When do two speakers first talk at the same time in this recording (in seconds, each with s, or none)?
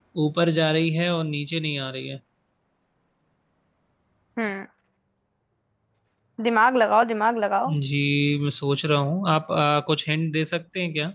none